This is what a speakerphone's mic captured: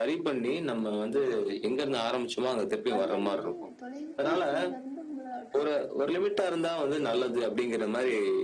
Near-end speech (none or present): present